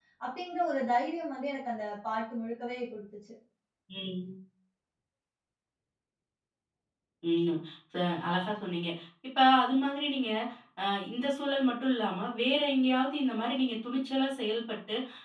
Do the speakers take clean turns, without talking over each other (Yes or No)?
Yes